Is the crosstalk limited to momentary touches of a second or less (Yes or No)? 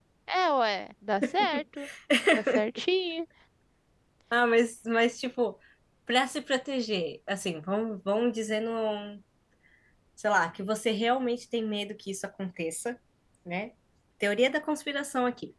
Yes